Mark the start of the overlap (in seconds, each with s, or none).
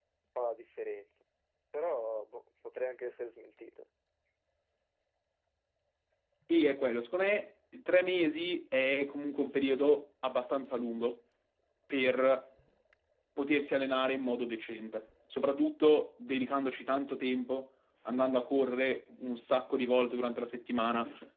none